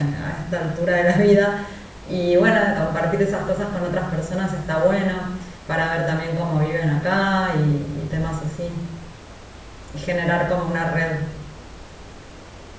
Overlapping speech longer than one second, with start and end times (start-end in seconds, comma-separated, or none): none